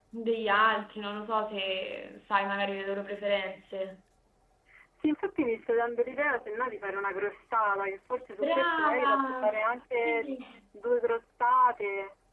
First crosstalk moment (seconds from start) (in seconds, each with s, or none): 8.4 s